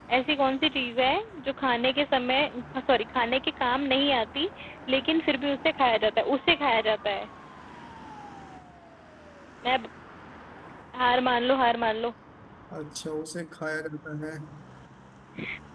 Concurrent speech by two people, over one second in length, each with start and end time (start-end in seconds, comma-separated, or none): none